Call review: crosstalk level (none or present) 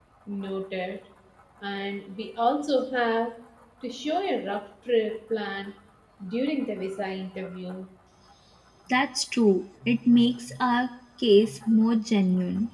none